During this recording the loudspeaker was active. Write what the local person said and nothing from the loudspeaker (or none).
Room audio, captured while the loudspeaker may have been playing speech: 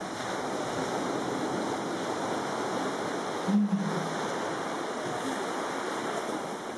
うん。